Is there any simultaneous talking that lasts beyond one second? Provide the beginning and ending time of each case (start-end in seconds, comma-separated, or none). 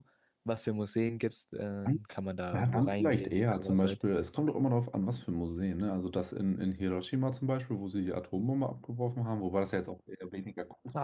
2.5-4.0